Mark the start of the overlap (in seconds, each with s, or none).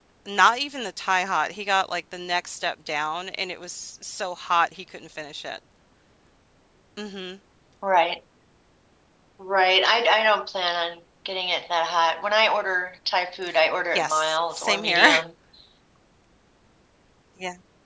13.9 s